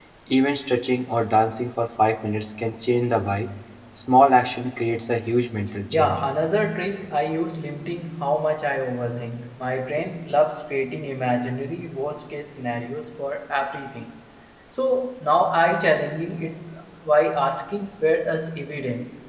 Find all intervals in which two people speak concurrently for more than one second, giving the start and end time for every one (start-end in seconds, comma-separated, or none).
none